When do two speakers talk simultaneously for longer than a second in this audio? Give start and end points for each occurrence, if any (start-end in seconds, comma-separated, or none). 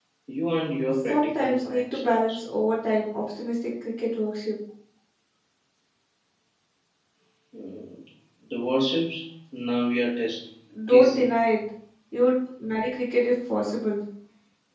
1.1-2.4